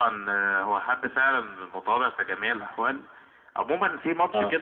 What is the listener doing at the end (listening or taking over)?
listening